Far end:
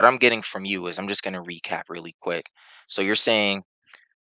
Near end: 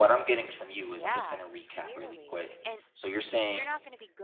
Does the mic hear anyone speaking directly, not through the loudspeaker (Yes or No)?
Yes